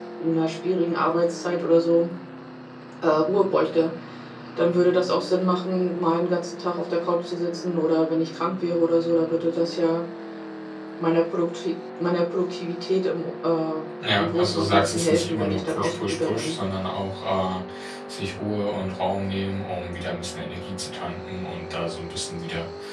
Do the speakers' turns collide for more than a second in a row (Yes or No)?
Yes